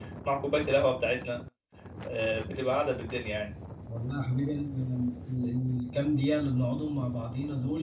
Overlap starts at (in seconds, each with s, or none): none